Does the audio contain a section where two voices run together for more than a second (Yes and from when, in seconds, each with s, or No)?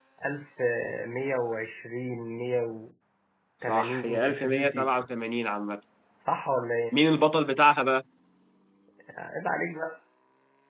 Yes, from 3.6 s